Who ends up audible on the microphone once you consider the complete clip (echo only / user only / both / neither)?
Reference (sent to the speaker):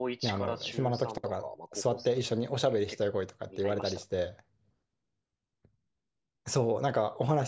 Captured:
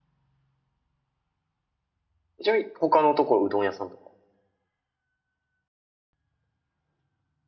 user only